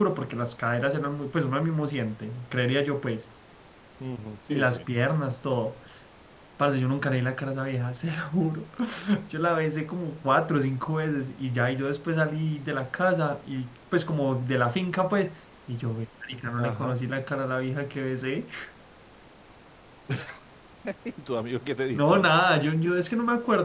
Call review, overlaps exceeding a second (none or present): none